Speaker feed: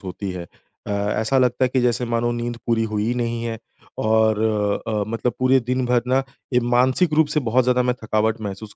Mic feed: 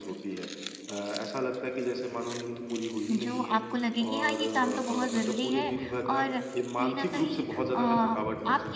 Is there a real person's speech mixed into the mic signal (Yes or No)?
Yes